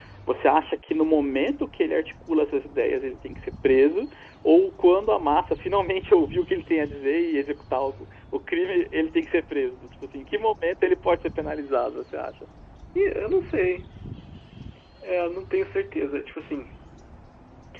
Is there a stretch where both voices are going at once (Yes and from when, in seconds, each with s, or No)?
No